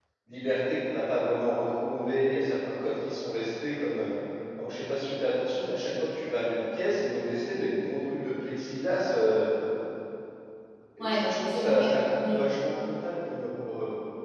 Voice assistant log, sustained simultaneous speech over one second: present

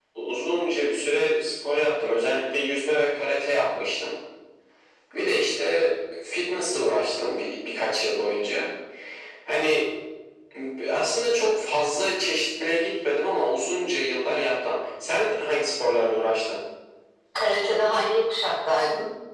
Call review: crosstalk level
none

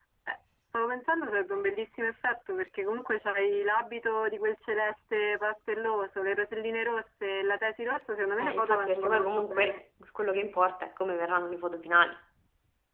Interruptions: present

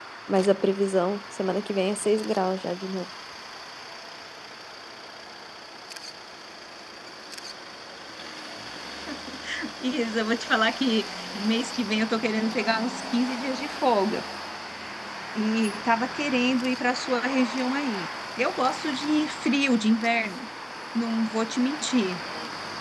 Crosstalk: none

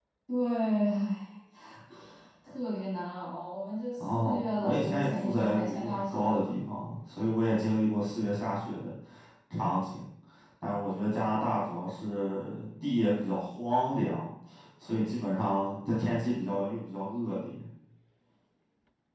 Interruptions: present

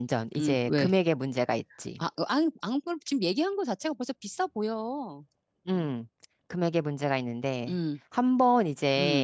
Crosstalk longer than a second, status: none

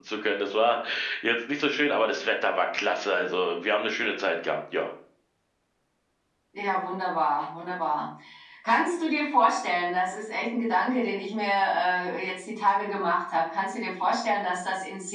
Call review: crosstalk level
none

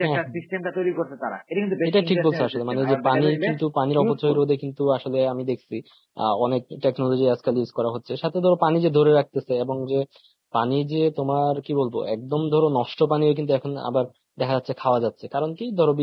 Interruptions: present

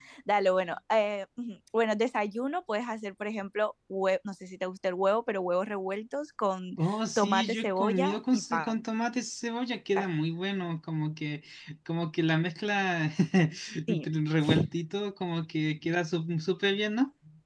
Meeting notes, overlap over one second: present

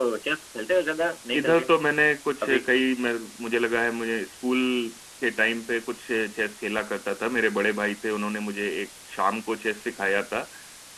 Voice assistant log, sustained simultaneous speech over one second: none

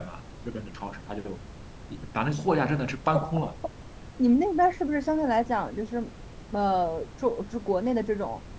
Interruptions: none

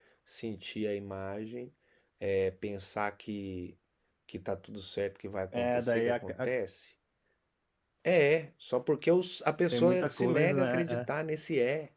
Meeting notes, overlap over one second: present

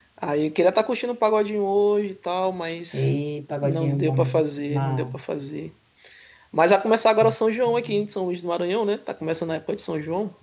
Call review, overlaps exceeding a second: present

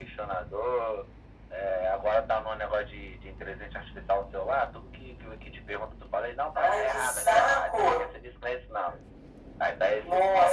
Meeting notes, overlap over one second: present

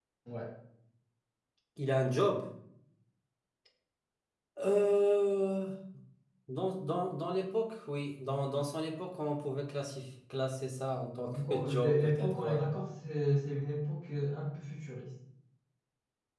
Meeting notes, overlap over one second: present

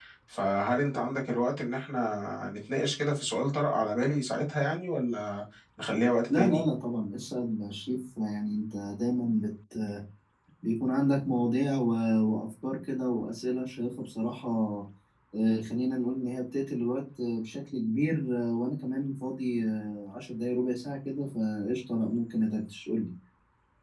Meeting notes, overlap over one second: none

